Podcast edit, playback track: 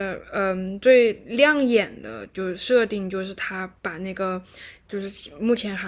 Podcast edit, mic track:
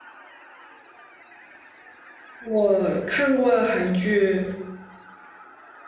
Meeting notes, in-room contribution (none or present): present